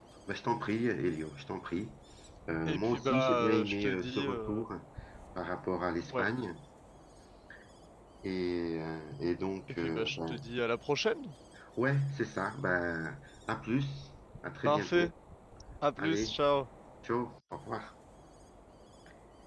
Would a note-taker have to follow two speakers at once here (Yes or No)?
Yes